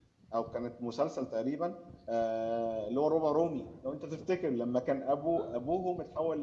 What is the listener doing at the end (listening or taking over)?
listening